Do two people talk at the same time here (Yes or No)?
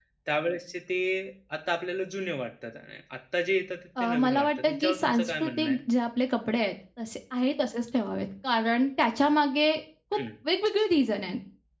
Yes